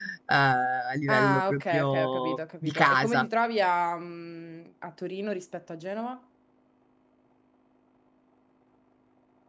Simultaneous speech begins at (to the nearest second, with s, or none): 1 s